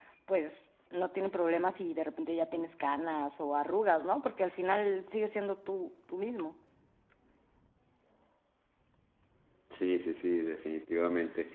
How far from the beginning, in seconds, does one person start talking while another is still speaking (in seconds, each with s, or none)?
none